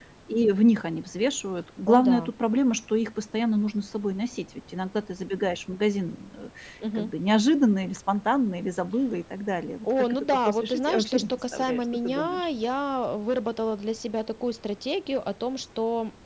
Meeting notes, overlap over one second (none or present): present